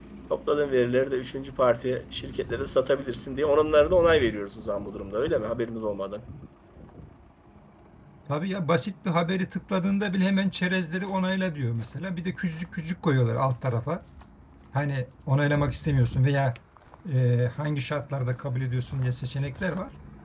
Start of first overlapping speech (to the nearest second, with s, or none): none